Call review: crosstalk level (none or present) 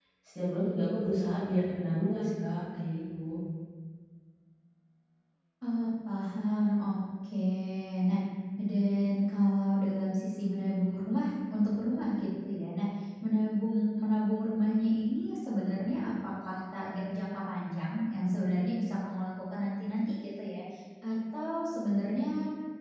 none